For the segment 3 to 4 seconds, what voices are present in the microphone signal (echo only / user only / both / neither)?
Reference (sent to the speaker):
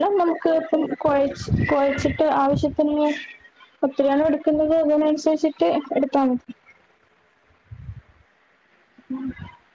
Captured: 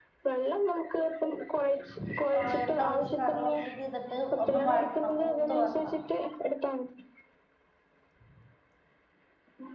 both